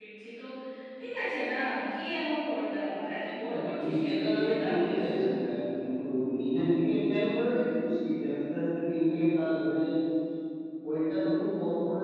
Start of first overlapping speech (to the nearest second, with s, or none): 3 s